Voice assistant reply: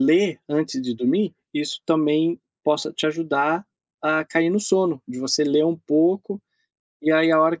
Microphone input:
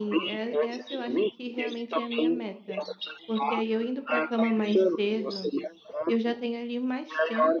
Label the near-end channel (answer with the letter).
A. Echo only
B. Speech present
B